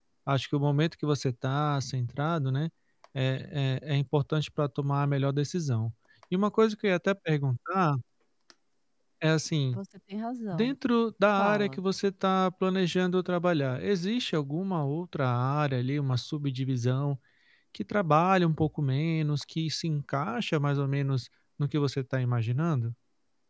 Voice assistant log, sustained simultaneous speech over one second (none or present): none